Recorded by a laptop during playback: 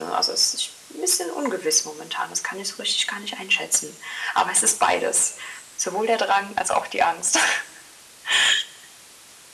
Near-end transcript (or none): none